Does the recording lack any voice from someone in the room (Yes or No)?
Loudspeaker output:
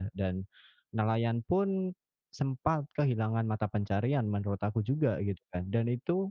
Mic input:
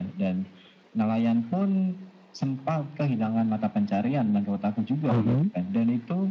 No